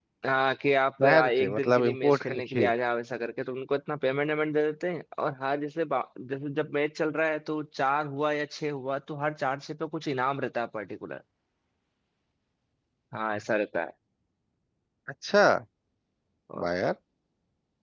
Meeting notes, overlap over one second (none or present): present